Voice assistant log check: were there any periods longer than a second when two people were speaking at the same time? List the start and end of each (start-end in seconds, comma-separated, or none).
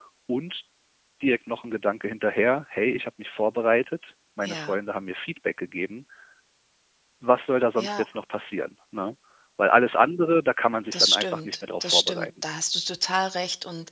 10.9-12.3